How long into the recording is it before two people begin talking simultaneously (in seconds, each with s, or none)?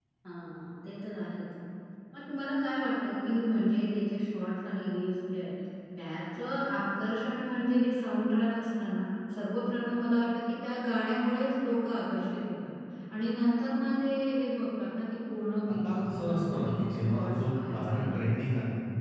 15.8 s